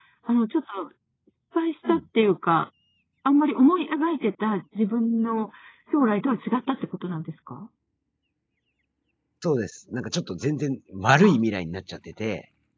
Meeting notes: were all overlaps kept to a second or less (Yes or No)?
Yes